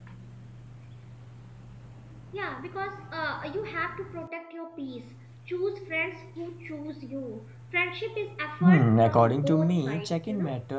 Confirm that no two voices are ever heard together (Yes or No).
No